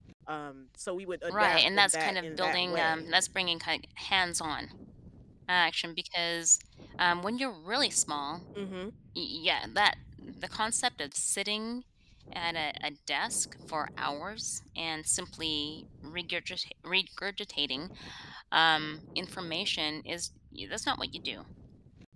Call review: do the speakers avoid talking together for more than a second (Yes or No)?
No